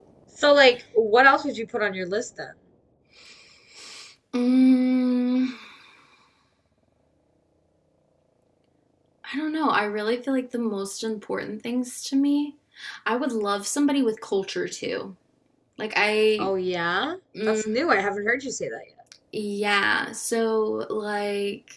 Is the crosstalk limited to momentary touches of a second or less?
Yes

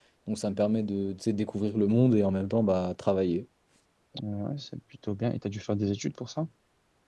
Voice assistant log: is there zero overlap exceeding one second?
Yes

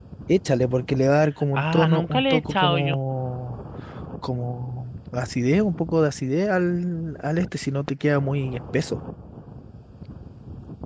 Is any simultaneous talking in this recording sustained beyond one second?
Yes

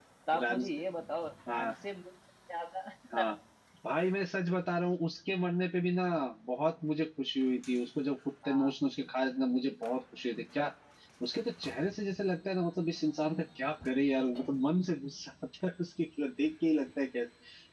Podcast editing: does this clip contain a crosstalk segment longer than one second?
No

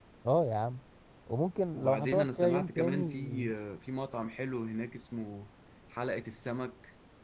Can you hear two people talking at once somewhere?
Yes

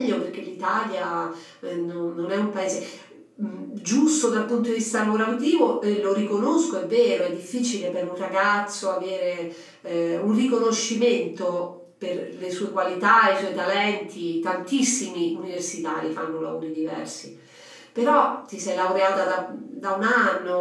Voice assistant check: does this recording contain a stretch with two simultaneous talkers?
No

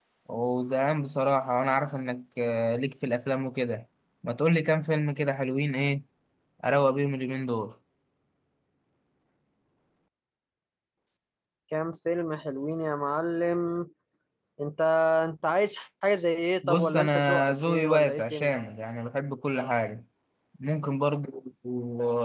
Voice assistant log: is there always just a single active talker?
No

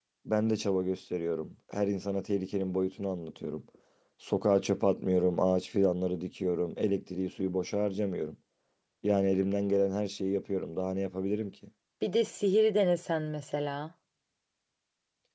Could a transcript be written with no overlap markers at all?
Yes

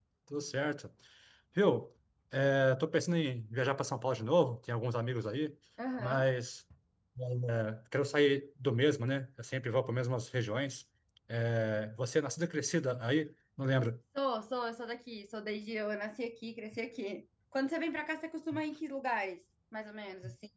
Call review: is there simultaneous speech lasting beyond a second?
No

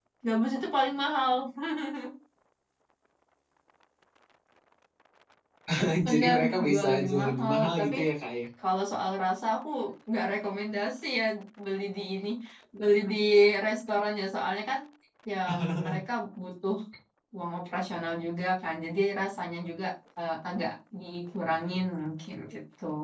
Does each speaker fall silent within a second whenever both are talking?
No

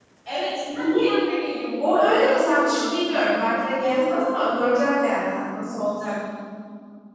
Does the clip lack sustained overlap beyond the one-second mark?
No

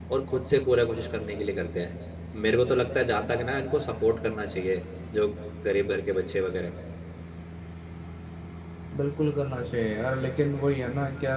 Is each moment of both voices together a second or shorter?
Yes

